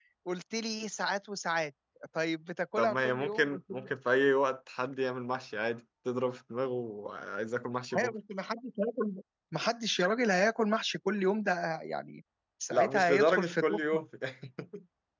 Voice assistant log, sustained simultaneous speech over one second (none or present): present